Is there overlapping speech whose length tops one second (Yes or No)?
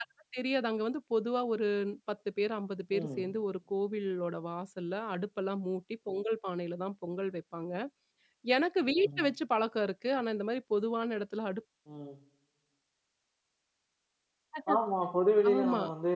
No